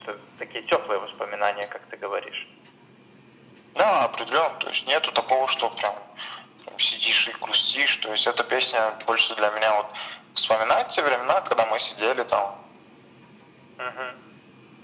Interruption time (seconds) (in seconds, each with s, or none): none